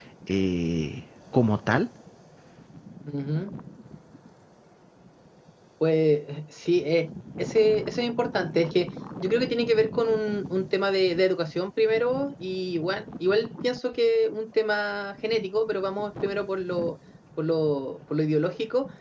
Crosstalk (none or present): none